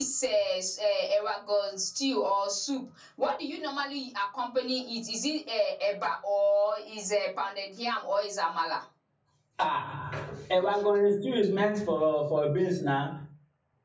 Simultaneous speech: No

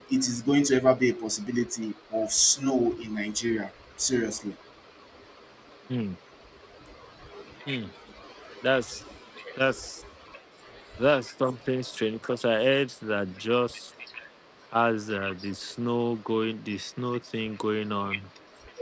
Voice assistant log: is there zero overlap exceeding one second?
Yes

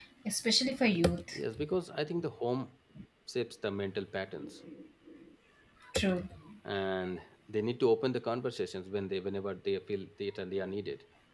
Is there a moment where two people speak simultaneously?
No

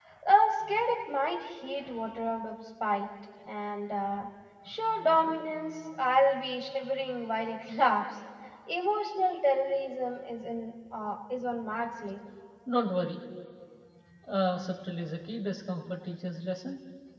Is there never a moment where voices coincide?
Yes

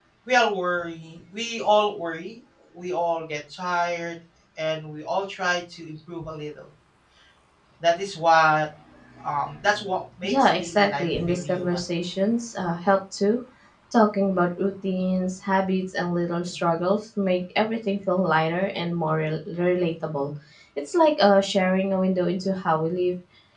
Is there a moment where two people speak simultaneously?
Yes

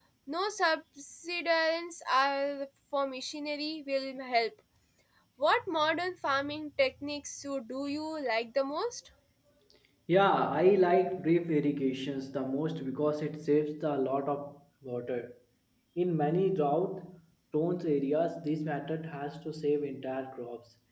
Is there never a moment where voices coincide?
Yes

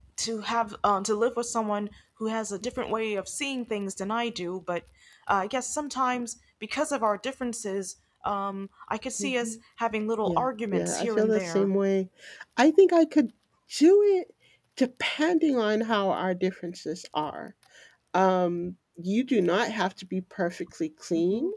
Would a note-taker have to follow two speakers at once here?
Yes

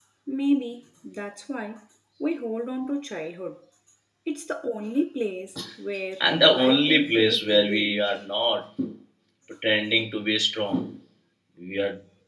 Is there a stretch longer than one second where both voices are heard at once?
Yes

